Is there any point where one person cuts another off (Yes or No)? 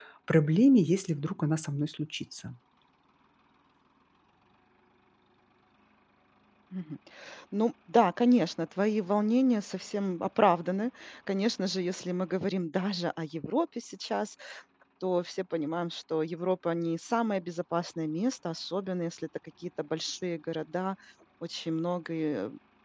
No